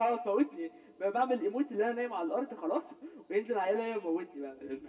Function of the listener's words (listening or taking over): taking over